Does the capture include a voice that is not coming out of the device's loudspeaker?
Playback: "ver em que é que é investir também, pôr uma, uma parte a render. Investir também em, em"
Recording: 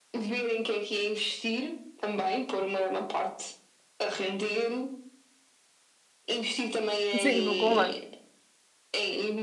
Yes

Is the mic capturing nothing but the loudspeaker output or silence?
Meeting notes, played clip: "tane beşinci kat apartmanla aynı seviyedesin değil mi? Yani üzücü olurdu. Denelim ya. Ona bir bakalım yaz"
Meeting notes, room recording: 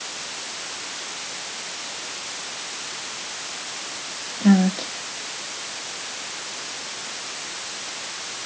No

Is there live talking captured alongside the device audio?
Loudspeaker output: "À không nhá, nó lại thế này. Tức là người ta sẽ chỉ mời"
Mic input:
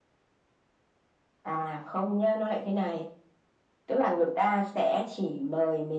No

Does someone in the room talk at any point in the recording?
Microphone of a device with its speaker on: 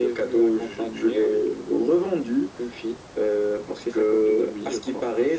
No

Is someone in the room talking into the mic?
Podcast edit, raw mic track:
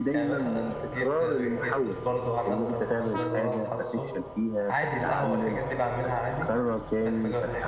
Yes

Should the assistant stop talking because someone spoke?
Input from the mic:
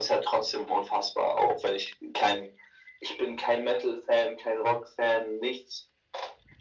No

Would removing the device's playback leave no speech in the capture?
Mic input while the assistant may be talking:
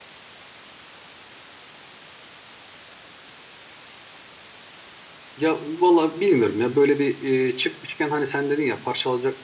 No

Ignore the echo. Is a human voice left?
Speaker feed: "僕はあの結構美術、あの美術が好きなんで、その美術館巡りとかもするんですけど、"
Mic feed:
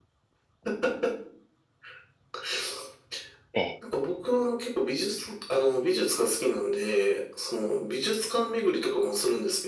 Yes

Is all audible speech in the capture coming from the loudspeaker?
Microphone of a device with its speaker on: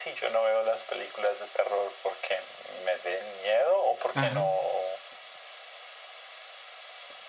No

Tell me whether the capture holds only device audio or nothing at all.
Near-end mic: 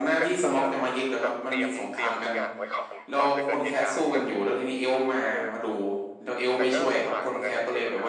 No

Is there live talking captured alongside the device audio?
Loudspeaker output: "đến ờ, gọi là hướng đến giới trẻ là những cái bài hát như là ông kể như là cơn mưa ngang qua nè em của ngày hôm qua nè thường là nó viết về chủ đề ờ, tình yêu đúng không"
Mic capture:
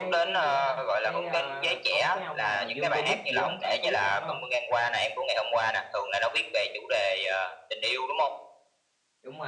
Yes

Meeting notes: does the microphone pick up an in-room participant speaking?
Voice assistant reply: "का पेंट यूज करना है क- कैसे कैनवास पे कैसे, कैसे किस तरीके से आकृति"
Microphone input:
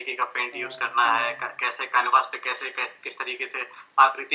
Yes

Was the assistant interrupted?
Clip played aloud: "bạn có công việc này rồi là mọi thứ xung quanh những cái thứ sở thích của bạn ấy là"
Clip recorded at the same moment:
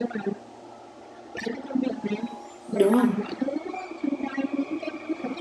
Yes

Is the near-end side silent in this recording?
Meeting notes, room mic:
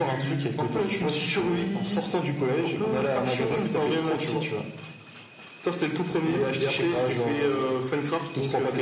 Yes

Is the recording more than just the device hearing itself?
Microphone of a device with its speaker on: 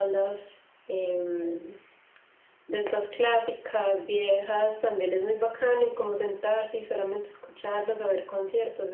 No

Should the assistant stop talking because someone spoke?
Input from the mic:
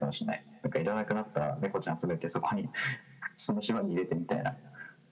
No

